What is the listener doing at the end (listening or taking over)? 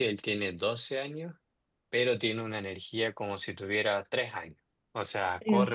listening